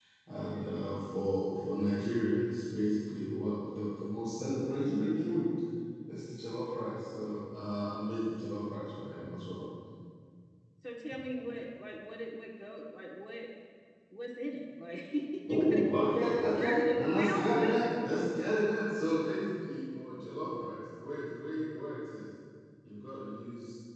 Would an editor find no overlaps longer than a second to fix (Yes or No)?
No